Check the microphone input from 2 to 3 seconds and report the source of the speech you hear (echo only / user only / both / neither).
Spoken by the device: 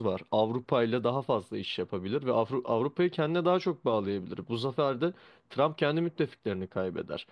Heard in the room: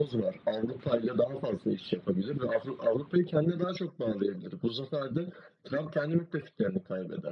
echo only